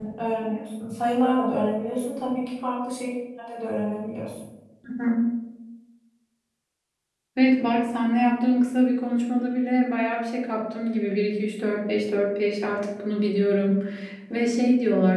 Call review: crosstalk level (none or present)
none